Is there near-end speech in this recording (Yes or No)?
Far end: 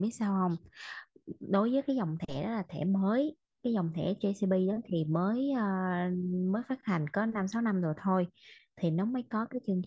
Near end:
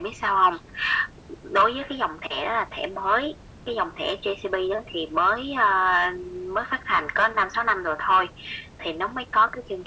No